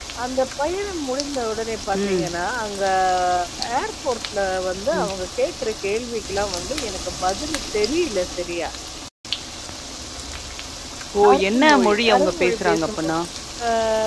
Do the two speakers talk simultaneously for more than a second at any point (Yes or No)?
Yes